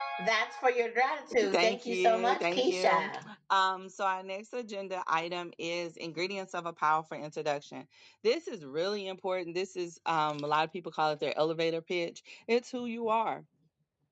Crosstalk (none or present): present